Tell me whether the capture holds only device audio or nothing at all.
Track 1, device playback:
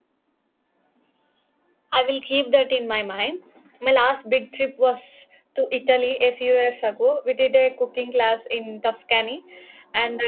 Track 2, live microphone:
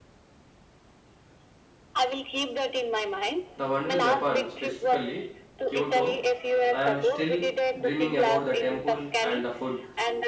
No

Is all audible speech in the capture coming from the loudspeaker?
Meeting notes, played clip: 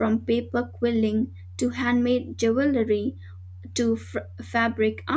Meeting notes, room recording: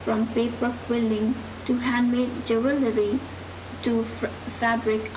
Yes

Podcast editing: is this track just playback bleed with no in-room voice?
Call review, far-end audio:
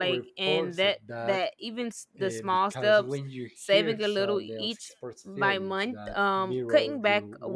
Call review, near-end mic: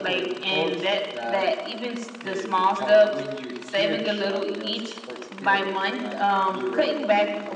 Yes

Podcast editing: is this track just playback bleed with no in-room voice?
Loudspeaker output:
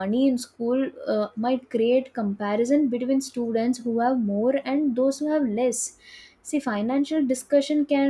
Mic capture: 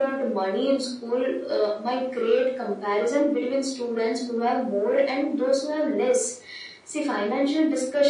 Yes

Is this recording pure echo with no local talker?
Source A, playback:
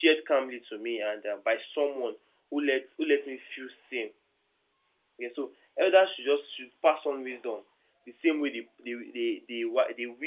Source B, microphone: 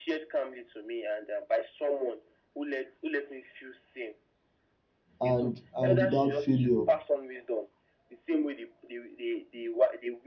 No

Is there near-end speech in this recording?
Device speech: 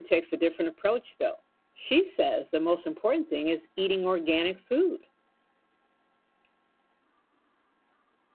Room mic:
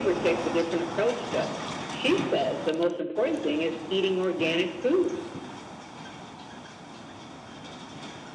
No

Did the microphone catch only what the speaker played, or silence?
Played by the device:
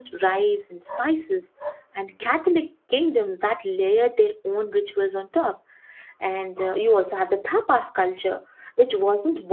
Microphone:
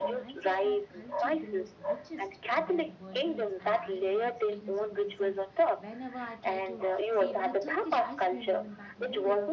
No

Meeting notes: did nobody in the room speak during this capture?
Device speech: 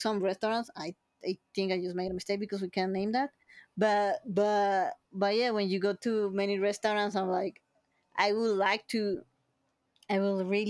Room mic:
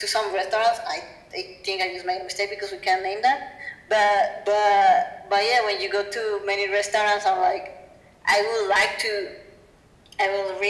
Yes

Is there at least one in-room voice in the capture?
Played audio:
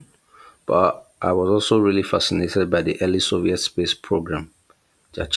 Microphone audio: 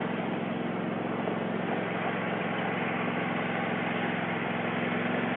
No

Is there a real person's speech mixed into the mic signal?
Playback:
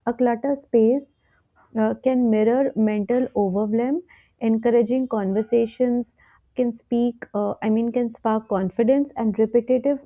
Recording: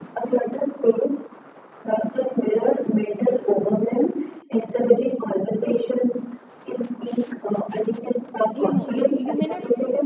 Yes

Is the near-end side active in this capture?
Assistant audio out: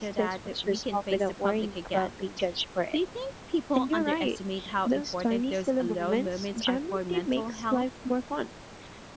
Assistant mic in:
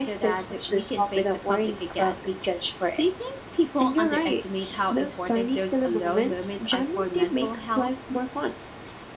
No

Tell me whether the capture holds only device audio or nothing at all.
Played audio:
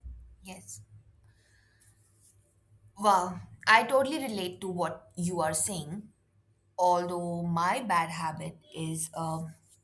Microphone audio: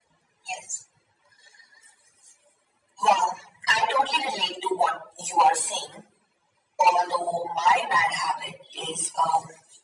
Yes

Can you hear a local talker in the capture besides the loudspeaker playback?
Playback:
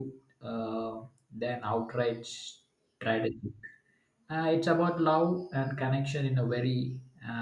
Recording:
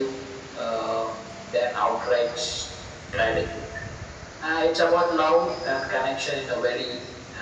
No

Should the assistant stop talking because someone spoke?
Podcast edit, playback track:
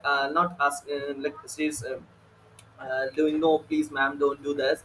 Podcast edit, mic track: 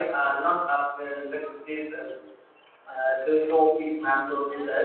Yes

